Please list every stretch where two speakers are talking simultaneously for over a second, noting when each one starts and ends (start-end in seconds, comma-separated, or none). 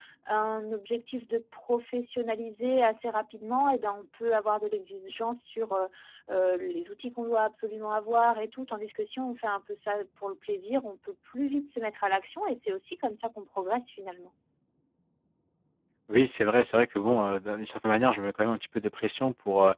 none